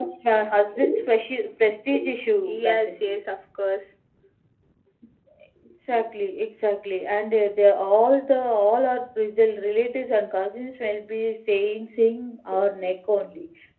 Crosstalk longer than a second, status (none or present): none